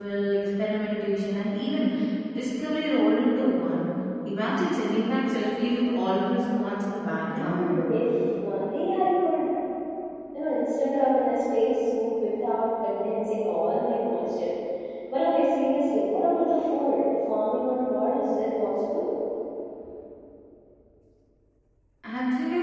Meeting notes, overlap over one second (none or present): none